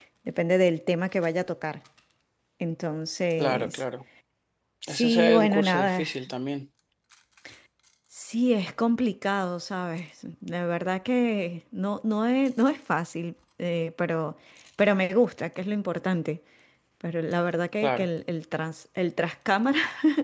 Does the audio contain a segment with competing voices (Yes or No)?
Yes